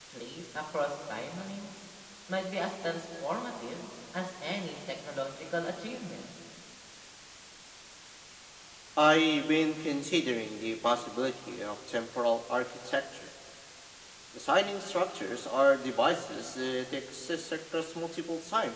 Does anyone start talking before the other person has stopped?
No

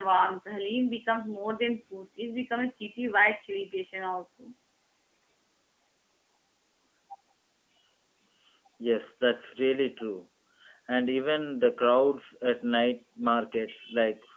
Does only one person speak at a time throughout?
Yes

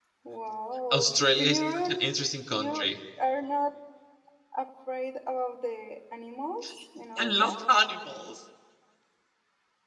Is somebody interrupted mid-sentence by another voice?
Yes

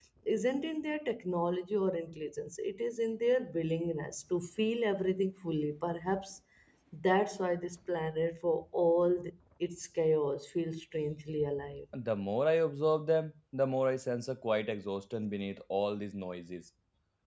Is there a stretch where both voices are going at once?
No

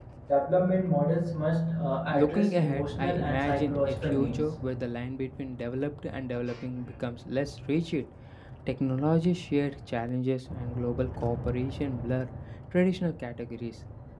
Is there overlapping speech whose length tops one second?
Yes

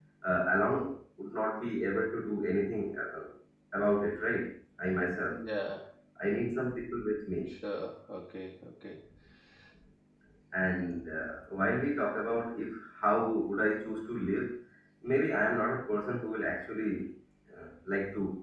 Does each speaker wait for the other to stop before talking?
Yes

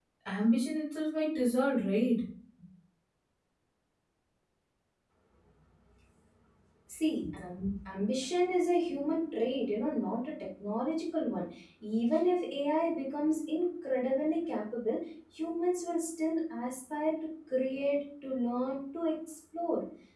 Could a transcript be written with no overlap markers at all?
Yes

